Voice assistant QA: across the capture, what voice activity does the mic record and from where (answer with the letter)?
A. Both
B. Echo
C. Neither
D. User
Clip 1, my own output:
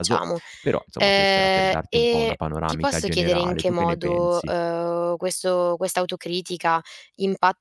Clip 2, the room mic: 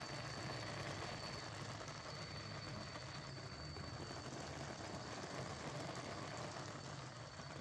C